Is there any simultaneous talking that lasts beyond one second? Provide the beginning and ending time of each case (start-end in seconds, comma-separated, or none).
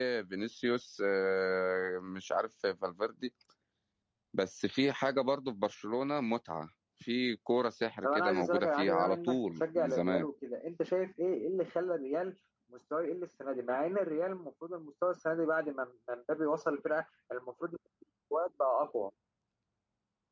8.0-10.3